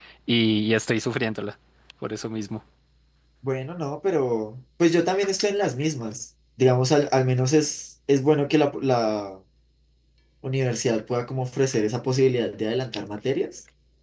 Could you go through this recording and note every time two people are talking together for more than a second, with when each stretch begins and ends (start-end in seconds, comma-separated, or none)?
none